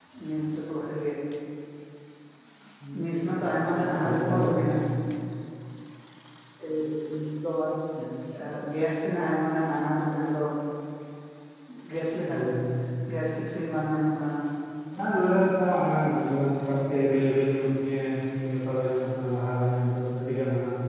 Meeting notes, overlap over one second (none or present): present